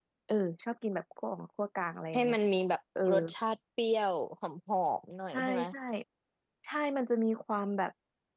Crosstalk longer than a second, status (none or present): none